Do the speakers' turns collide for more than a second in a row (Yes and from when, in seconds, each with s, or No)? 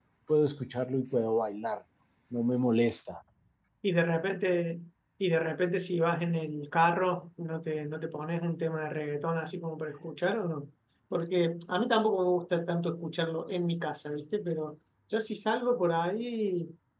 No